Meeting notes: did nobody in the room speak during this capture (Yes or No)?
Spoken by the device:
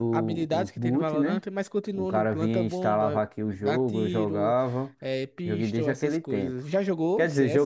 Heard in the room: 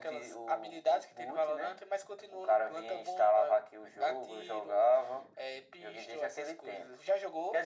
Yes